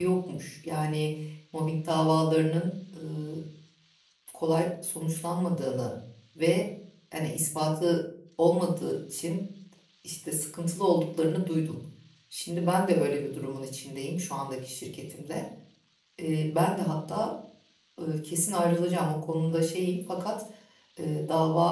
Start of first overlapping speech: none

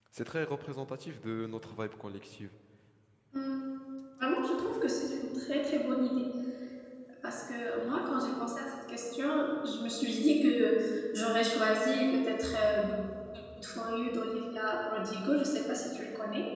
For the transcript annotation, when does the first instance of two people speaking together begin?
none

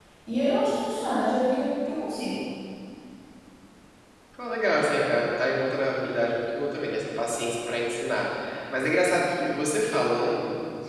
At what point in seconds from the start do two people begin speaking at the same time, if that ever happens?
none

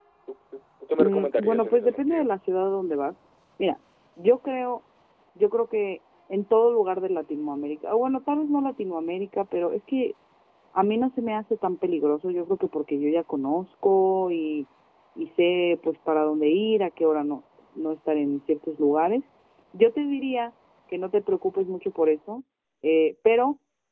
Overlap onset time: 1.0 s

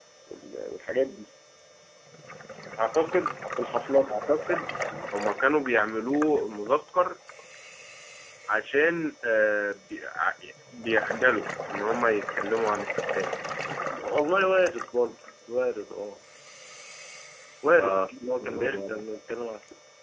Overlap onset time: 17.8 s

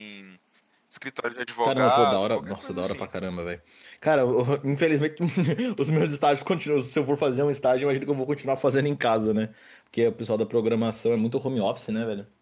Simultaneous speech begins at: 1.6 s

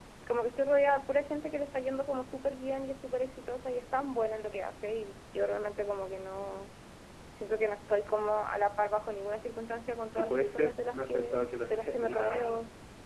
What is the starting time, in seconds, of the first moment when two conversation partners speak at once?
10.2 s

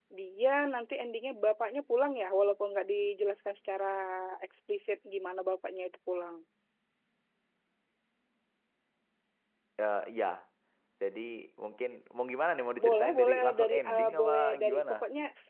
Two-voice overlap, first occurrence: 12.8 s

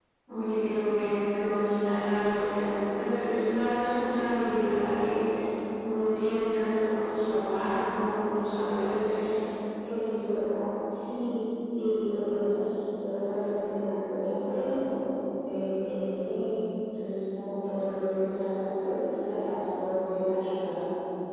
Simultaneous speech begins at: none

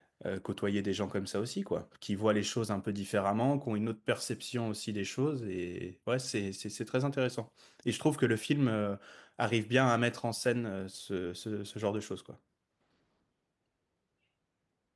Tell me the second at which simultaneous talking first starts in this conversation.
none

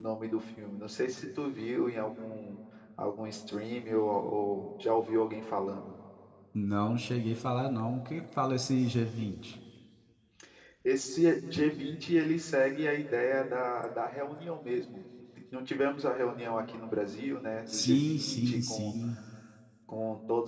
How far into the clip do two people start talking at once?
17.7 s

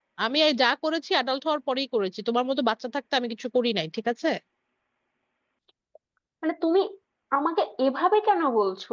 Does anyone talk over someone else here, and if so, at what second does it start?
none

